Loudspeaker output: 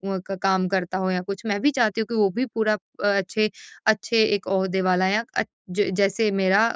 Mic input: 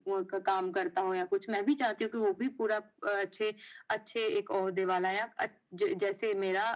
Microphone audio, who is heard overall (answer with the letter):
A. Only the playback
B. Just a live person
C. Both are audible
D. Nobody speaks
A